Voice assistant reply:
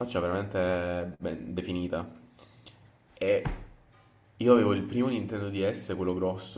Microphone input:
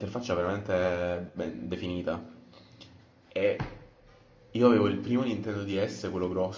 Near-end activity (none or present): none